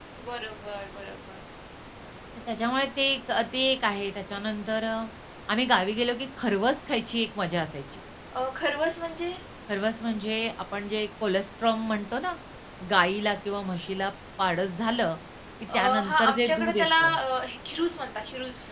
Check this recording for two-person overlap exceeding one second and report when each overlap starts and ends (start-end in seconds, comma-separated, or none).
15.7-17.2